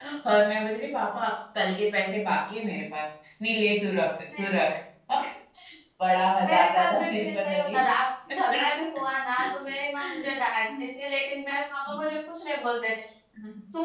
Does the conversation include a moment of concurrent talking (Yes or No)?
Yes